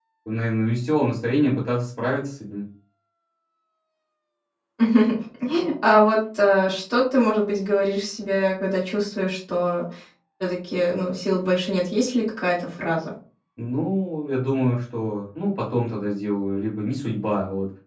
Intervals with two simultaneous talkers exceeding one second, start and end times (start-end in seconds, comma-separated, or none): none